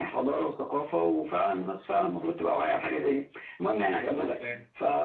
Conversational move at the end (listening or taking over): listening